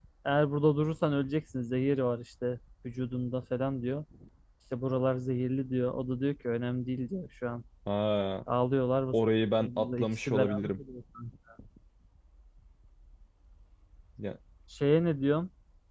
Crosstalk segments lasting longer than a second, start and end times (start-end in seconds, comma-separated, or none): 9.6-10.8